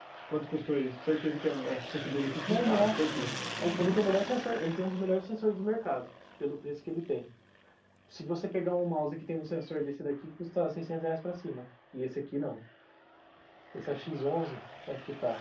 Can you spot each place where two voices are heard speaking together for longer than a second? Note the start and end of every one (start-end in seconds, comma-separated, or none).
none